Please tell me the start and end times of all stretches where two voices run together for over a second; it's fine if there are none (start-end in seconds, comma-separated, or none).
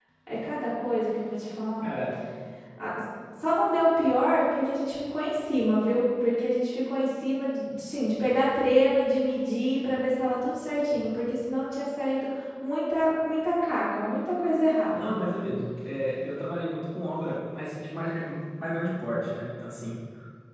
none